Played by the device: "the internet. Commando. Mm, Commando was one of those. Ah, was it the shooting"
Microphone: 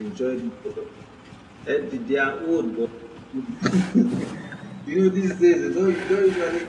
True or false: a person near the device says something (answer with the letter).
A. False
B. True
B